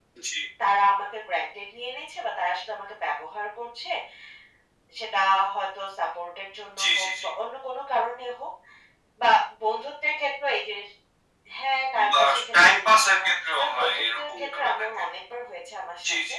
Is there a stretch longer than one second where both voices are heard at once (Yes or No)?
Yes